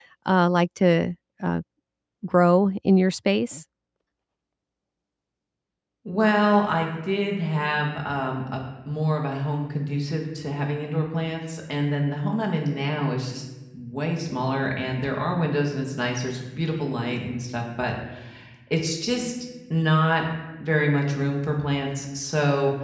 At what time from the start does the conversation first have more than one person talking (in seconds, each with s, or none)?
none